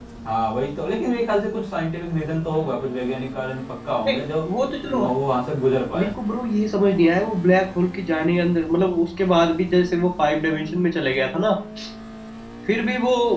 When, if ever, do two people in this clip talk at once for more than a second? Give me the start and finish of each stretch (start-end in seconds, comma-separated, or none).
none